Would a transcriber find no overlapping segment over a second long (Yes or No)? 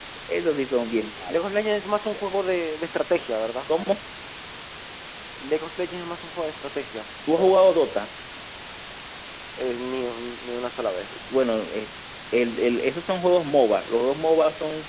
Yes